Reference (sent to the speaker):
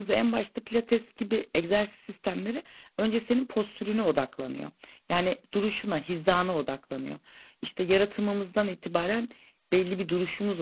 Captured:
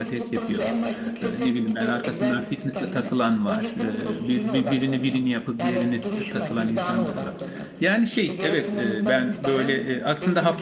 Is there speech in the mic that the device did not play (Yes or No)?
Yes